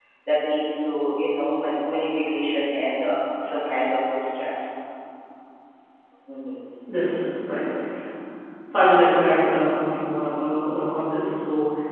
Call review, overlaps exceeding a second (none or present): none